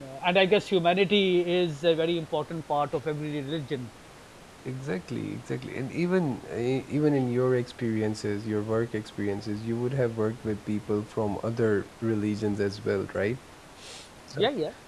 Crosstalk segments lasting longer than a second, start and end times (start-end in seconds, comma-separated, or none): none